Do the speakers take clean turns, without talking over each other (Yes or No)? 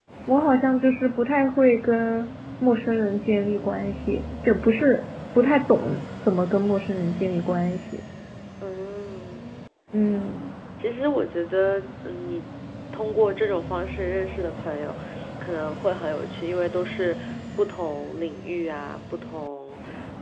Yes